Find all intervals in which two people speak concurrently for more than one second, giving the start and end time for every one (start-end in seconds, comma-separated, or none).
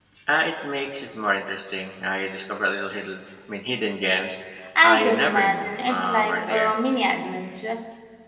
4.8-6.7